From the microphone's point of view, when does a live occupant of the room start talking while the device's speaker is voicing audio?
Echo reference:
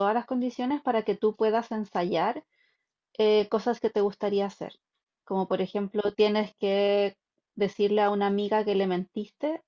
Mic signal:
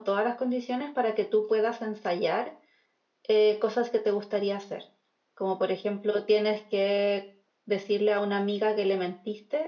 none

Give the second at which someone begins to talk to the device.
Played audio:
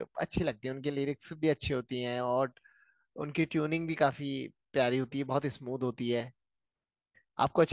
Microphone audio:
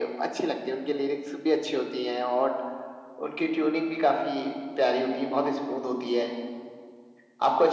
none

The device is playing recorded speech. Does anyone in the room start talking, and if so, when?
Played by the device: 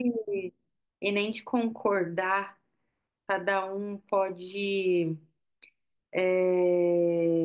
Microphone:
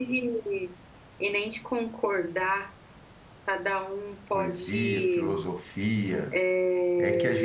4.3 s

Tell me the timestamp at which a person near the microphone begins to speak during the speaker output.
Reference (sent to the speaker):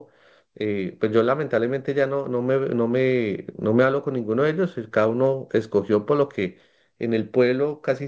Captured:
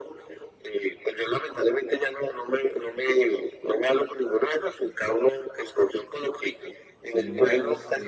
7.0 s

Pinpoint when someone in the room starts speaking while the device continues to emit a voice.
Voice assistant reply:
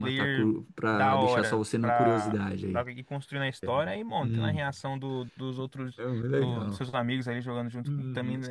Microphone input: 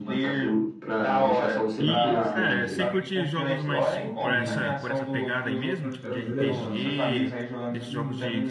1.8 s

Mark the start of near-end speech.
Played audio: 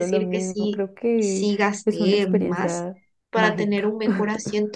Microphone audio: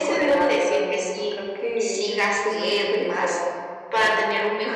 none

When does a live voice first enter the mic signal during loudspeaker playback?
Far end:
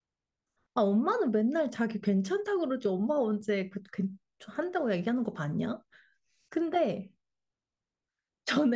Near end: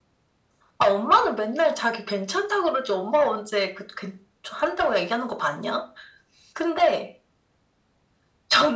none

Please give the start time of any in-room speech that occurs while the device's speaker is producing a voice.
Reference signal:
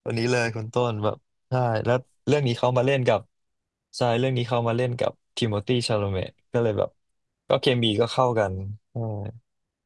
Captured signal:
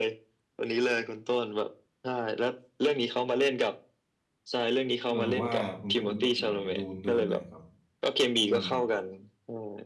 5.0 s

